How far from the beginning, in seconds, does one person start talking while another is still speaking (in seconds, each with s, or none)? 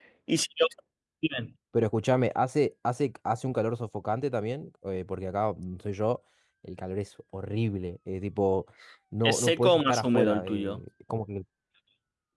9.2 s